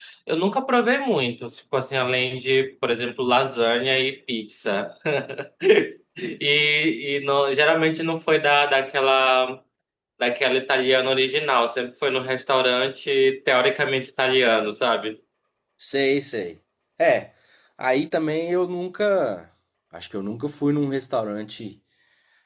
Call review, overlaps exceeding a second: none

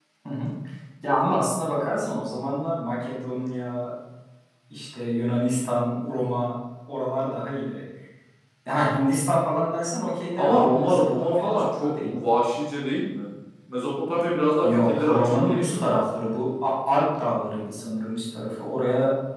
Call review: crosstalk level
present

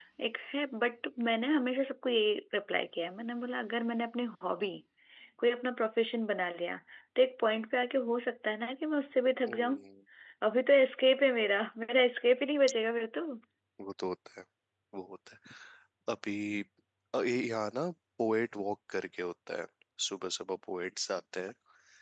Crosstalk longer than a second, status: none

